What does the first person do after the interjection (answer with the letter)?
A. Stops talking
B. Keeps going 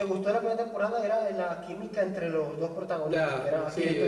A